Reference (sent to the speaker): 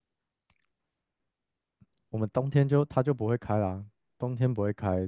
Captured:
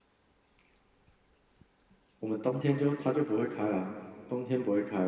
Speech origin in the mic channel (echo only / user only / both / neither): echo only